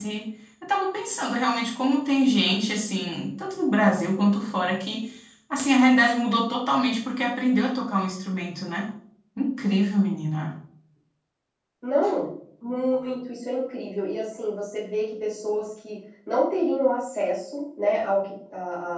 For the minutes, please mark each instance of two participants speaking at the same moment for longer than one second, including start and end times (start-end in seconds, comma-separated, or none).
none